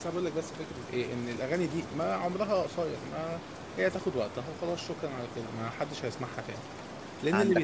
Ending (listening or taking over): listening